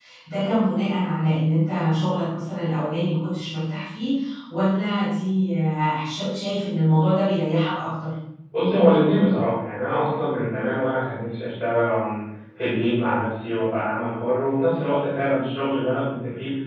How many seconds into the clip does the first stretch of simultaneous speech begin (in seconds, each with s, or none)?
none